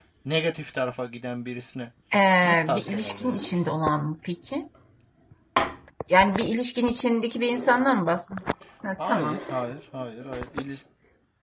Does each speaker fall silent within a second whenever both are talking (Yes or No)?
No